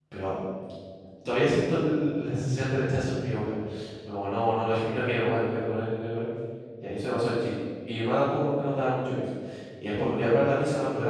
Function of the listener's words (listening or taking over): listening